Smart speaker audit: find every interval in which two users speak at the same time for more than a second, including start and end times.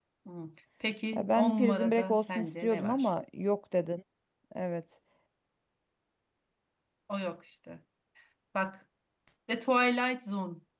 1.1-3.1

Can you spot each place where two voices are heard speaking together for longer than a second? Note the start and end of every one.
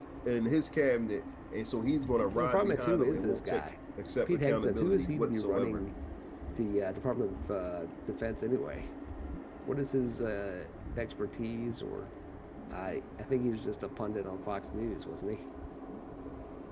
2.3-3.6, 4.3-5.8

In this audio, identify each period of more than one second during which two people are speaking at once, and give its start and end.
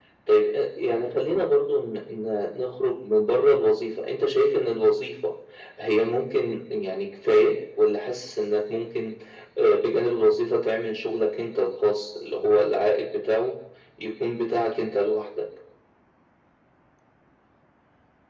none

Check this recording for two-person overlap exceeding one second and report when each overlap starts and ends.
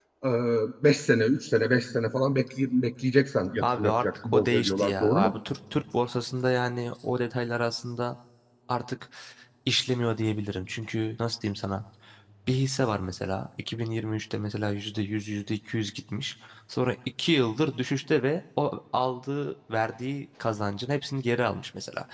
3.6-5.3

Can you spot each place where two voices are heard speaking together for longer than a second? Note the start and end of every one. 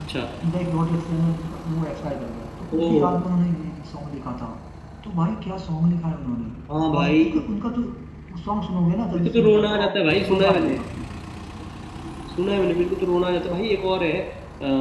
9.1-10.8

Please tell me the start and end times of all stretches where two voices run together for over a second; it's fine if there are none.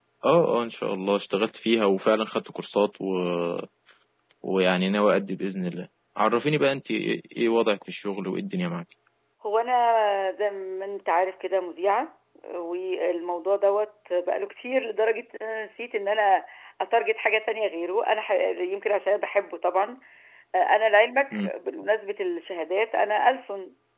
none

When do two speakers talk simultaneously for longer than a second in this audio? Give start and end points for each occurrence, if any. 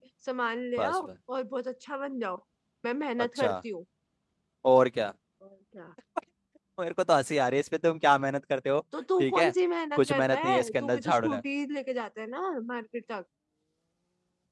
10.0-11.4

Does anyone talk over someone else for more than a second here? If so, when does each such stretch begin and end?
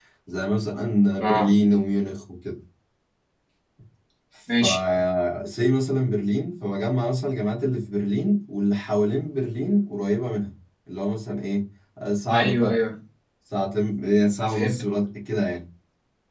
none

